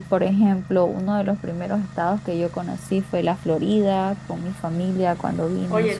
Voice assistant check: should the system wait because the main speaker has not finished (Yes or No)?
No